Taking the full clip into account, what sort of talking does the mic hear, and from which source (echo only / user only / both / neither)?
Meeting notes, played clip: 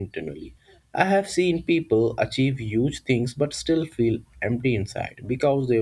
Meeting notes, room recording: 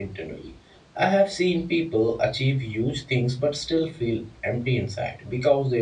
echo only